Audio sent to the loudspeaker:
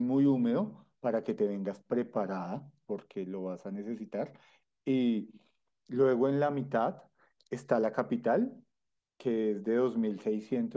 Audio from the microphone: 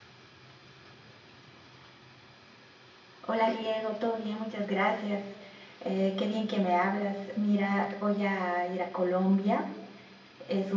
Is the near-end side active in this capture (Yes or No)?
Yes